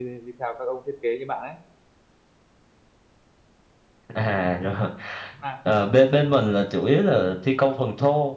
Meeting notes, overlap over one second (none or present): none